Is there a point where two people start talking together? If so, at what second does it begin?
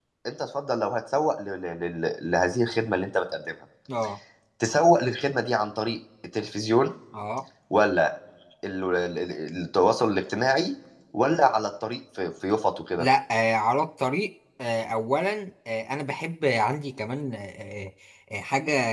none

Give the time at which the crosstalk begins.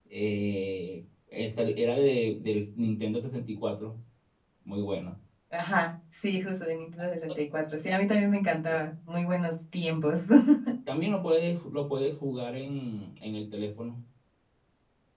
none

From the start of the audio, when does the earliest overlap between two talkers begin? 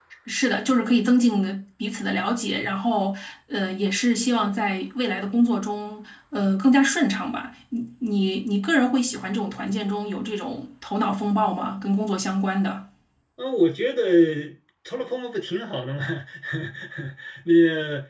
none

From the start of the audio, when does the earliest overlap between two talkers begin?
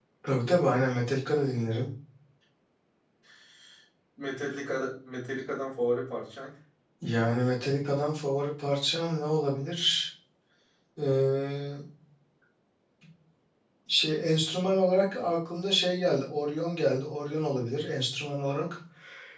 none

